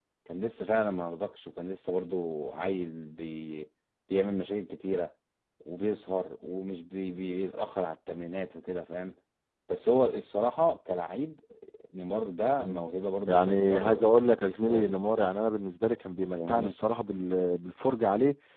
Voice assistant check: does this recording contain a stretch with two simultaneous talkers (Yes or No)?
Yes